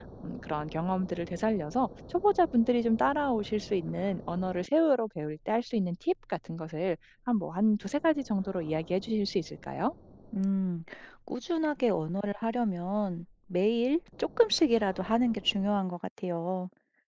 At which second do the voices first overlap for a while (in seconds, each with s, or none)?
none